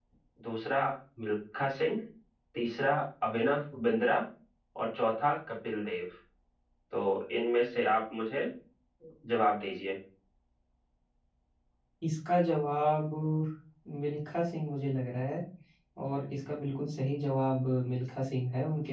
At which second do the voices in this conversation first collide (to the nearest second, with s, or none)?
none